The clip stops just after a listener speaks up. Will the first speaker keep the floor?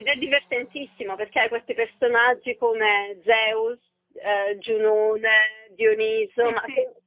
Yes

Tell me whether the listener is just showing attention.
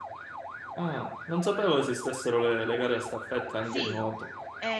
No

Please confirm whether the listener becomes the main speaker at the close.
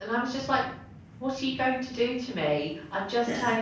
No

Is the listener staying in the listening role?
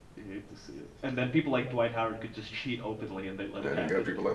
No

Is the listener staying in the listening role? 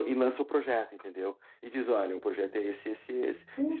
No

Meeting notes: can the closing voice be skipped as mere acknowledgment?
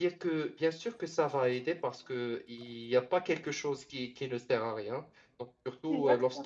Yes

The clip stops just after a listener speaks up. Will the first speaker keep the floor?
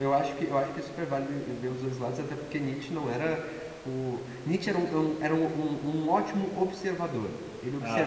Yes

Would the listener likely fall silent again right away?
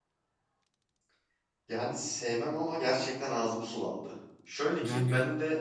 Yes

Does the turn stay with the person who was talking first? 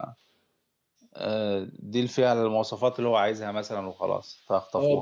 No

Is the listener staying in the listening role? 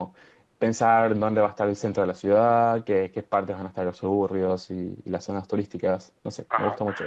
No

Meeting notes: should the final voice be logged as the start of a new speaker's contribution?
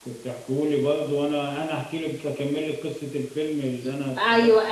Yes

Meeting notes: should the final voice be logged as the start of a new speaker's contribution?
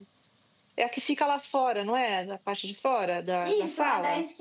Yes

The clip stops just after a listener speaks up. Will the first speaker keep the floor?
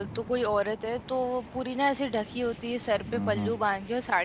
Yes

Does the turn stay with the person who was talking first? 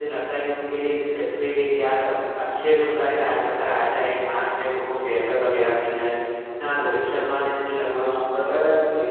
No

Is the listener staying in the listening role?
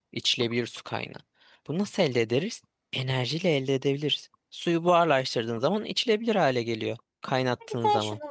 No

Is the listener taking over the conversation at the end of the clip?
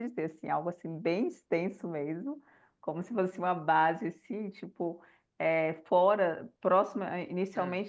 No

